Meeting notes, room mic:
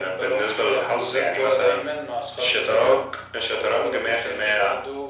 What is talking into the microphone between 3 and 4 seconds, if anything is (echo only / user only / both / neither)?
echo only